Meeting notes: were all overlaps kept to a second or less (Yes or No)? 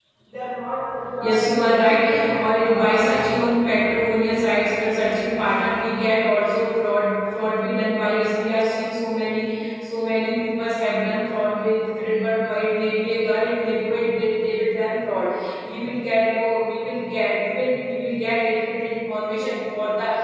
No